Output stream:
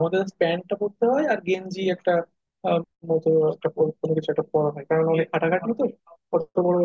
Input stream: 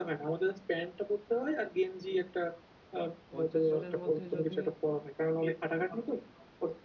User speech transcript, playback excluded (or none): পঞ্চাশ জনের মধ্যে যদি